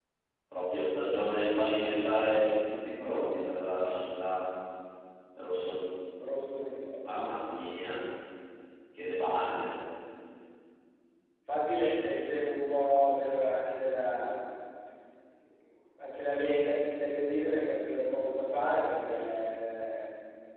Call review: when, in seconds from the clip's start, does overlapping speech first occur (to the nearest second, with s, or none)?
none